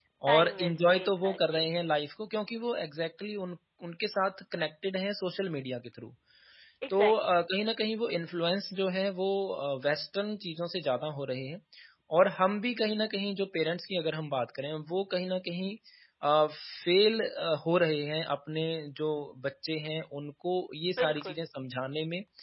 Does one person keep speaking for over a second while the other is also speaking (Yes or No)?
Yes